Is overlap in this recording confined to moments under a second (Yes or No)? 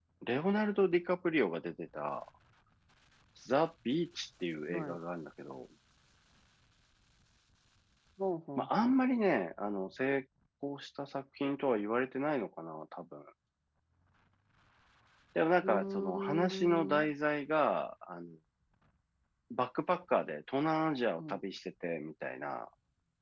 No